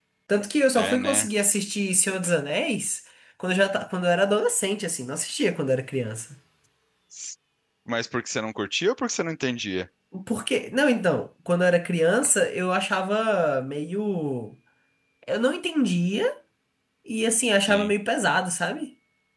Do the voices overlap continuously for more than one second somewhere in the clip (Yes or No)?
No